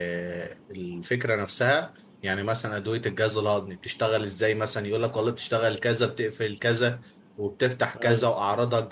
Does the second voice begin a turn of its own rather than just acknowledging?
No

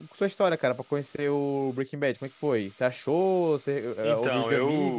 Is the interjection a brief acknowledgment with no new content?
No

